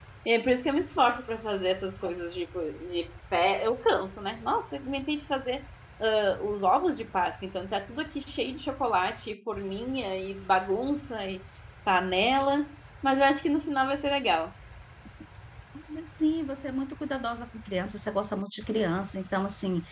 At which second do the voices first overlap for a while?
none

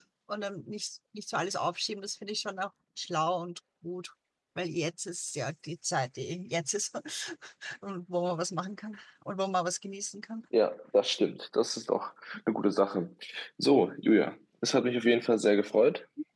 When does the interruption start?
none

